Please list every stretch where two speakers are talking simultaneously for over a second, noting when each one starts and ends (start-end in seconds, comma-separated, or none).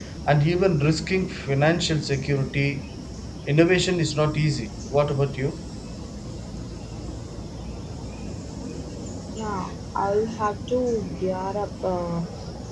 none